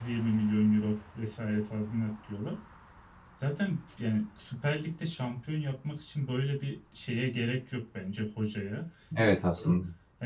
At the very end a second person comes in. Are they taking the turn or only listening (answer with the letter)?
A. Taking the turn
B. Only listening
B